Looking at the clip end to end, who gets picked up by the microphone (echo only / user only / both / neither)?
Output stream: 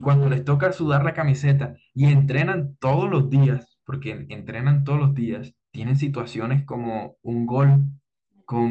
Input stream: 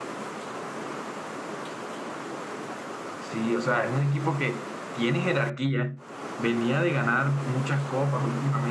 user only